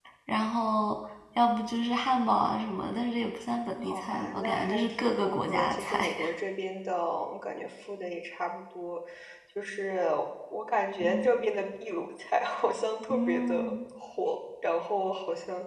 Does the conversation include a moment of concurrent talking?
Yes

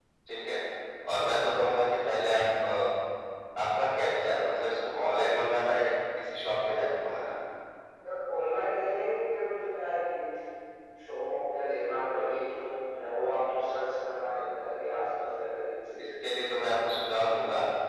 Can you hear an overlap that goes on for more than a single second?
No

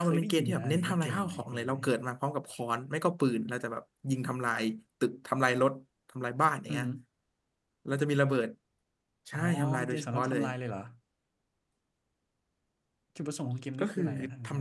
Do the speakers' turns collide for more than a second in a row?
Yes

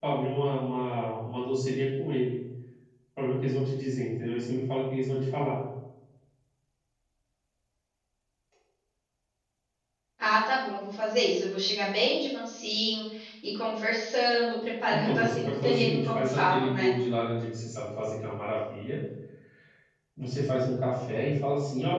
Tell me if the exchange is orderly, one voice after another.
No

